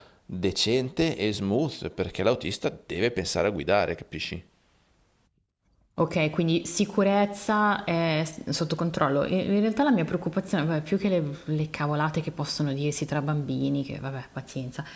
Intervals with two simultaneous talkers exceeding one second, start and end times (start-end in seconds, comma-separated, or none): none